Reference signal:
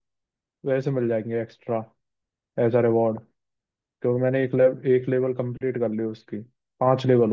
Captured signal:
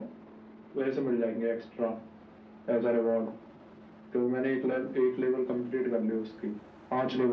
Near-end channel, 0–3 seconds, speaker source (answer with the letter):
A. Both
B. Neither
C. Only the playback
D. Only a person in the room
C